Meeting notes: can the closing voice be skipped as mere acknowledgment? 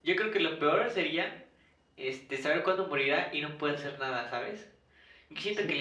Yes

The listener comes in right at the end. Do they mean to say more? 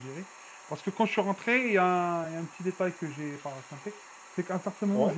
No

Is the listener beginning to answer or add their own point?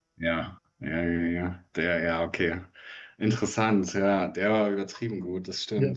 Yes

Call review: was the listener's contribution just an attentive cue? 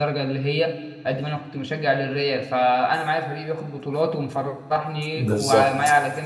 Yes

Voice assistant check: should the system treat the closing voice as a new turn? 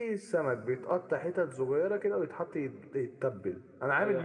No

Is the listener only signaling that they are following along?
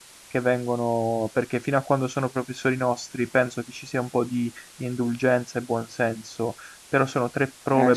No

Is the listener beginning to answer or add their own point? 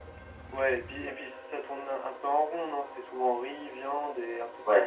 Yes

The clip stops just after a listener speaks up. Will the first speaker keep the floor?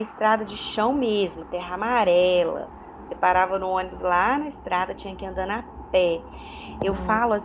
Yes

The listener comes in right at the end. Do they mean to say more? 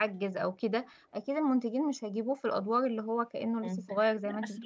Yes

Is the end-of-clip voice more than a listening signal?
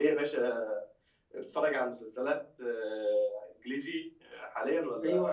Yes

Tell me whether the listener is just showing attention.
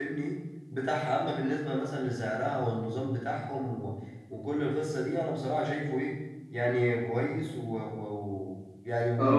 No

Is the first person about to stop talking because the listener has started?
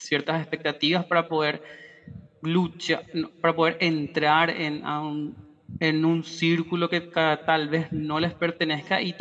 No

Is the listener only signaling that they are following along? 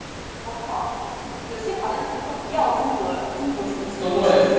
No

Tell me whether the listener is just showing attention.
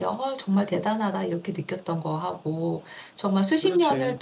Yes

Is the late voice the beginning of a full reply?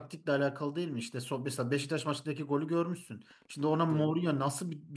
No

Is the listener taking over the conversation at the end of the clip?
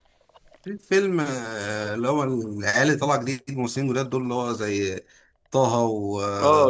Yes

